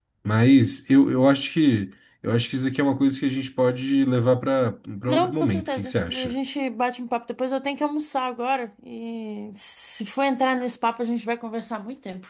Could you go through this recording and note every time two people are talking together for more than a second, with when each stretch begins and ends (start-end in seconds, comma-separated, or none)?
5.1-6.3